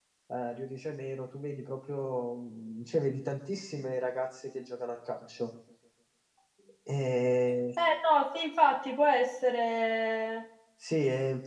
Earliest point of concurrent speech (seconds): none

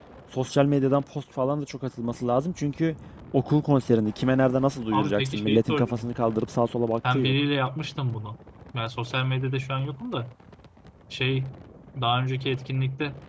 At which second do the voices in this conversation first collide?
5 s

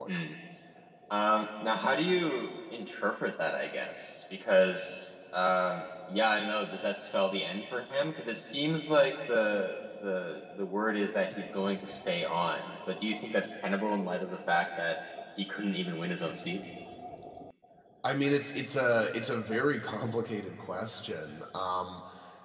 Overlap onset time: none

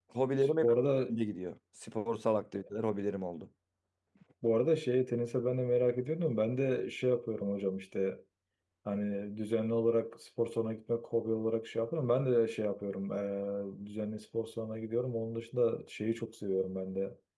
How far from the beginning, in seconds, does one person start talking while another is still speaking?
none

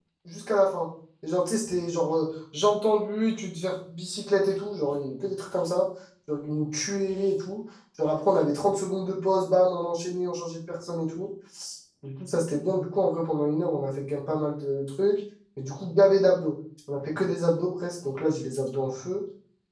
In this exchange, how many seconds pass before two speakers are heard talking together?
none

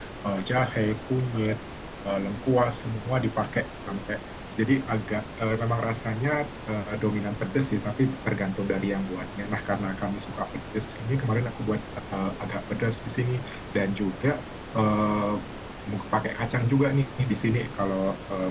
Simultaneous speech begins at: none

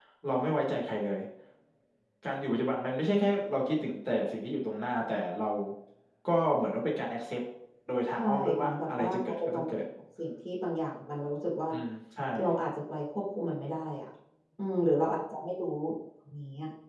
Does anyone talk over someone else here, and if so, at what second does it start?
8 s

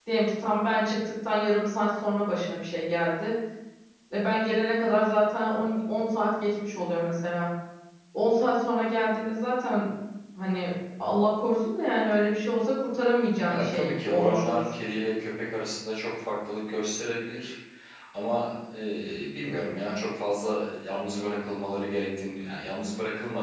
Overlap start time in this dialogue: 13 s

